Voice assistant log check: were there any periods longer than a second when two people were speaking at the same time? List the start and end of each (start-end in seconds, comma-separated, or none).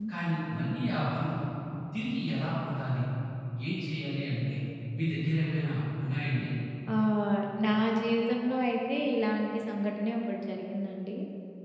none